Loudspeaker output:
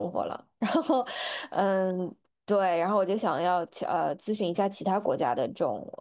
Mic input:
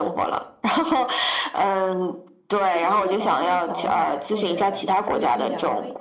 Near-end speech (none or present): present